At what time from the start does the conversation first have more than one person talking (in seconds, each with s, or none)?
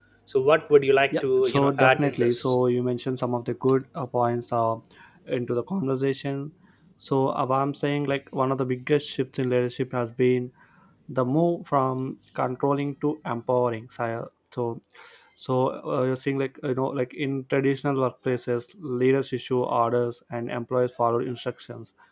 1.2 s